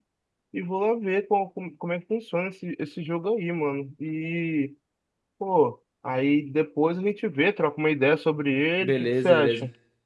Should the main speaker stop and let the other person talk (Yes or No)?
Yes